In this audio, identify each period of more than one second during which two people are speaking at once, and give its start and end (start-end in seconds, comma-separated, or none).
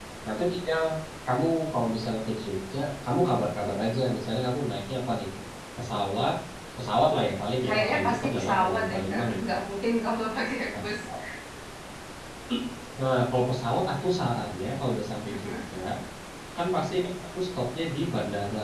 7.6-9.4